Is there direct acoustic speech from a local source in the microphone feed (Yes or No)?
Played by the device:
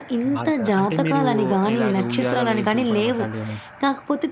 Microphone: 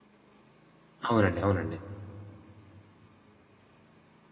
Yes